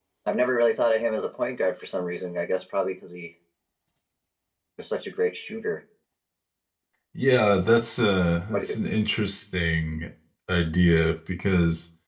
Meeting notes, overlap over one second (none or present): none